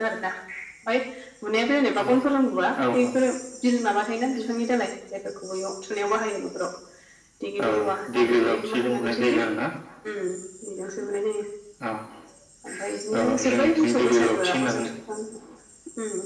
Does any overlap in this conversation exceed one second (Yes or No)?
Yes